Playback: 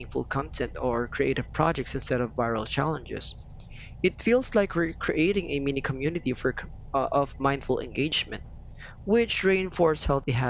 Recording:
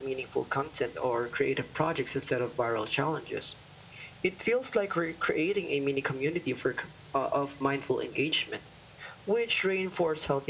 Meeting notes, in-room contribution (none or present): none